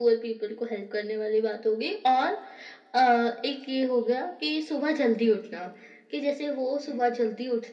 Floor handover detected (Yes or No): No